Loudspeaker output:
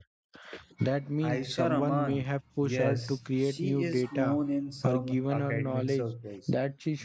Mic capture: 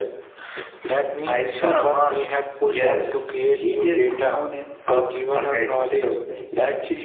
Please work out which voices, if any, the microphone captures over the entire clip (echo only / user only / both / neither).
echo only